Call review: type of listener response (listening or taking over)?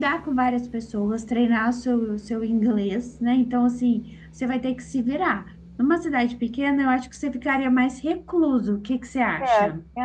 taking over